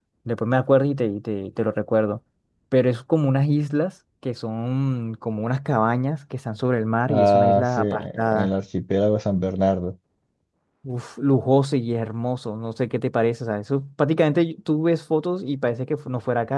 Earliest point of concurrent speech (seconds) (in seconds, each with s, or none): 7.1 s